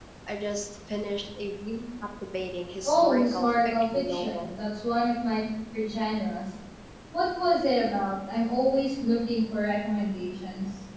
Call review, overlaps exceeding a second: present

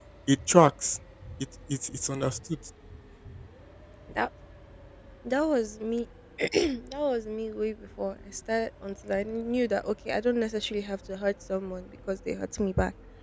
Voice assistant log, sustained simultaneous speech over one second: none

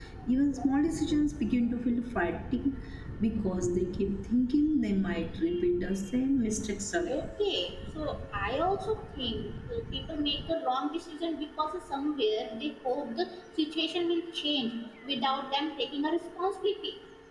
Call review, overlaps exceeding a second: none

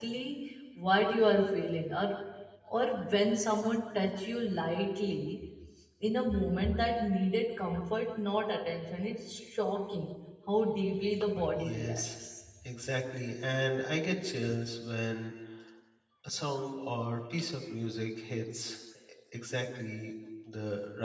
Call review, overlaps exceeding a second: none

